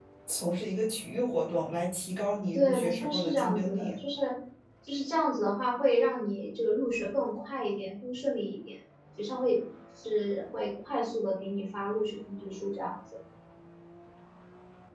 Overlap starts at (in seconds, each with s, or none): 2.5 s